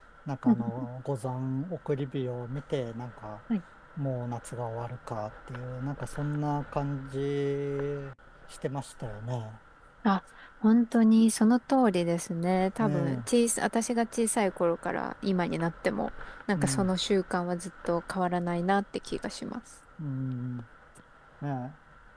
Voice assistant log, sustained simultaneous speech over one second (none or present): none